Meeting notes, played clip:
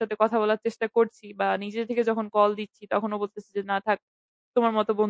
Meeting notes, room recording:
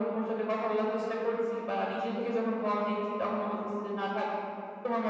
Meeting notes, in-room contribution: none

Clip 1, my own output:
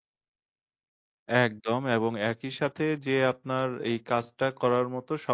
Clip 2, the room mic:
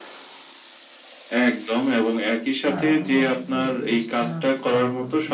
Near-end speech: present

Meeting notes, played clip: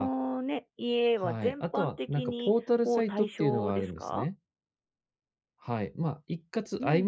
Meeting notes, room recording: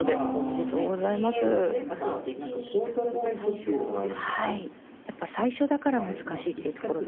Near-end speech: present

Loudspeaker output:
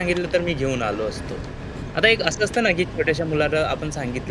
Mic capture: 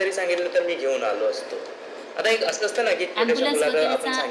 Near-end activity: present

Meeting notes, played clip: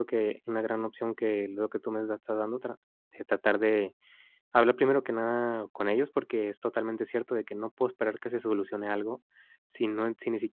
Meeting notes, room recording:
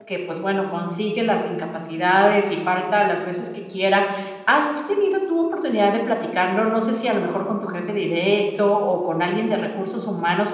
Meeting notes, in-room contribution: present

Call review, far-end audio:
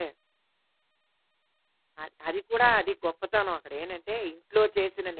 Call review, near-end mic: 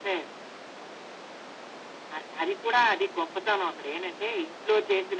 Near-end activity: none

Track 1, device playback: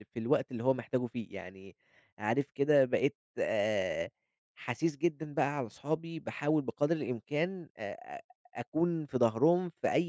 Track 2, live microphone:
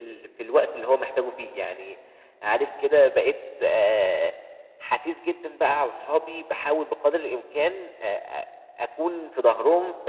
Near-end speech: none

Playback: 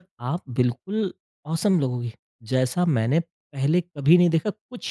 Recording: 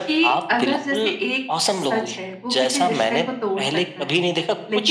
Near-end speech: present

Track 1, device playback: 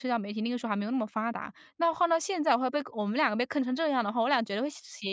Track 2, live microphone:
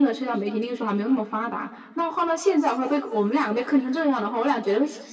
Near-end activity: none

